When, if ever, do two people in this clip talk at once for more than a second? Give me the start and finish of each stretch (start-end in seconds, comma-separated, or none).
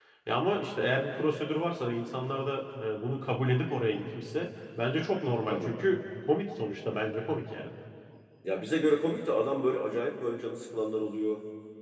none